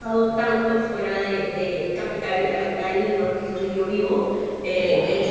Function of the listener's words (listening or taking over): listening